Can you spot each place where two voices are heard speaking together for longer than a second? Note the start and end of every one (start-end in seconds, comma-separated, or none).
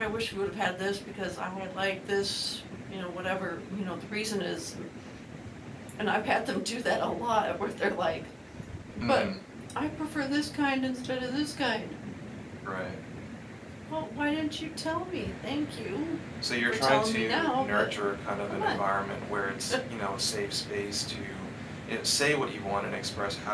16.7-17.9